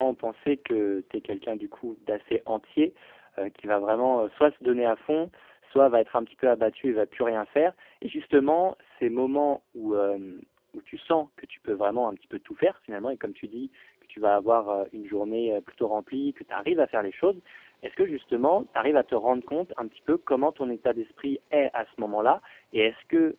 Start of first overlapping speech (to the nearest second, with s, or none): none